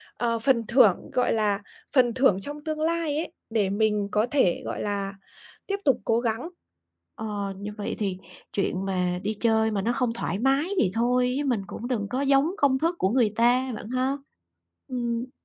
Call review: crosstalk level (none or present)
none